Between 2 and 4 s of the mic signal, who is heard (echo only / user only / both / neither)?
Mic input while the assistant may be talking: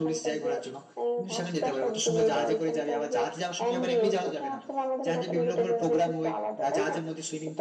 echo only